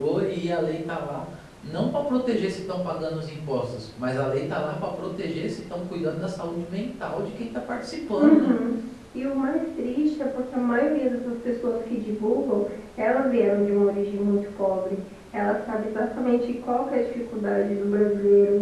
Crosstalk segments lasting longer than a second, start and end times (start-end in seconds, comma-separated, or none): none